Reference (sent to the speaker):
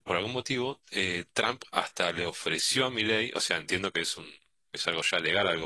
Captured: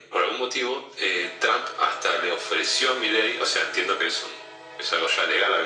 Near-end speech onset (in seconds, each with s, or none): none